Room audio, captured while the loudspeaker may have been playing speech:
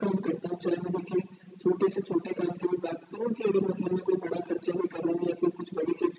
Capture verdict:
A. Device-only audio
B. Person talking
A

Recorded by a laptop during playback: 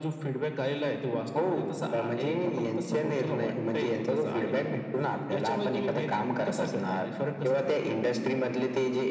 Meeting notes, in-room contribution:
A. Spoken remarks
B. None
B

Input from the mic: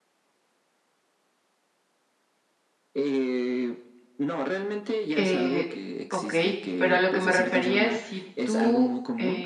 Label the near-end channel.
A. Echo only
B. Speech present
B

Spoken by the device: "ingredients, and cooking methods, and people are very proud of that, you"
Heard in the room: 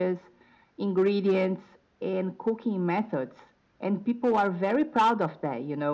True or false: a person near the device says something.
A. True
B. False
B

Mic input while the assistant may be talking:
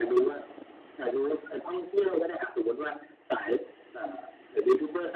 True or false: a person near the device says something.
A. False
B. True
A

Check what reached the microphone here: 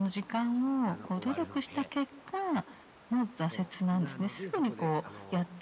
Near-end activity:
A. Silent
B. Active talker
B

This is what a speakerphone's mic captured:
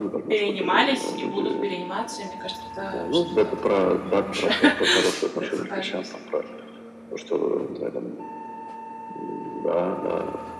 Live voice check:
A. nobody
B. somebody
B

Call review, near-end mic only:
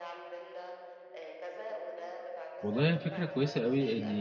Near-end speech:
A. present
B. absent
A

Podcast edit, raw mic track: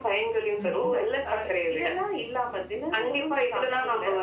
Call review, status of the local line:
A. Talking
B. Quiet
A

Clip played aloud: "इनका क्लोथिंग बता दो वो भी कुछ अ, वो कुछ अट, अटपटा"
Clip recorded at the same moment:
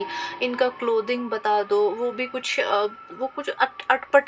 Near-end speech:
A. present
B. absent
B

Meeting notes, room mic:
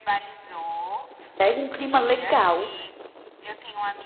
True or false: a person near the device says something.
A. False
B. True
B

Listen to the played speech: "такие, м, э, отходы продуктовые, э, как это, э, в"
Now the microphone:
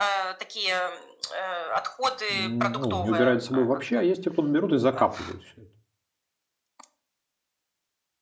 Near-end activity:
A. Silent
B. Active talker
B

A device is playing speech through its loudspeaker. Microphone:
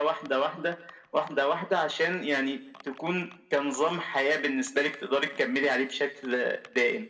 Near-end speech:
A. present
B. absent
B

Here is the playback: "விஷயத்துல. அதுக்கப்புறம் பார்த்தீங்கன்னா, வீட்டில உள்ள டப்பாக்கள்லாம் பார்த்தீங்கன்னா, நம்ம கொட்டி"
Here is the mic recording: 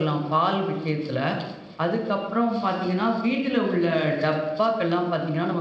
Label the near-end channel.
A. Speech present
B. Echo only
B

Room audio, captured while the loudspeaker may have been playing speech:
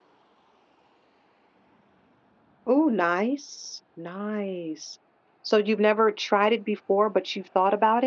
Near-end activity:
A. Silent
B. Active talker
B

